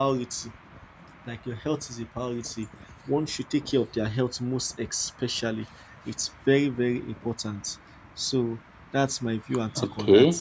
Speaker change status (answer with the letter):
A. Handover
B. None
A